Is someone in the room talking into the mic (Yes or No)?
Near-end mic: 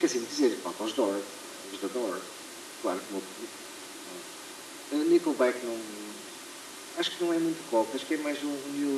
No